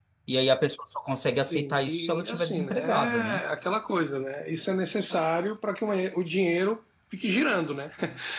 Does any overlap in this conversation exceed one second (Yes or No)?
Yes